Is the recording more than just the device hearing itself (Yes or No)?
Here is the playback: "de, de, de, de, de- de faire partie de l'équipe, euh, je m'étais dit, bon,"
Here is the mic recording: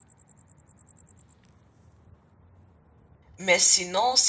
Yes